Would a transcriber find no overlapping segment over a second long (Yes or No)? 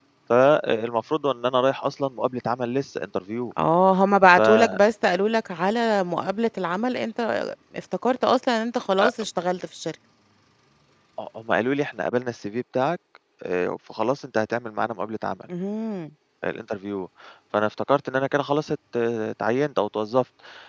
Yes